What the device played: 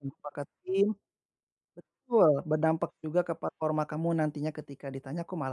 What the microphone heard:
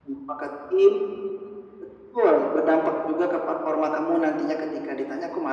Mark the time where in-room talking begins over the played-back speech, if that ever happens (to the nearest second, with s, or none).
none